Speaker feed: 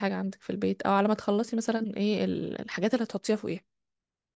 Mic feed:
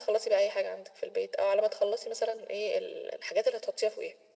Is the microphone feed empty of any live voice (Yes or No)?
Yes